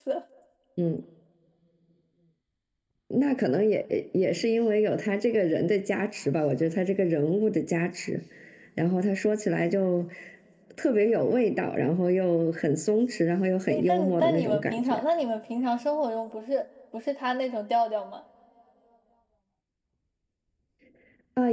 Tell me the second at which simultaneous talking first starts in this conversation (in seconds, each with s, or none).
13.7 s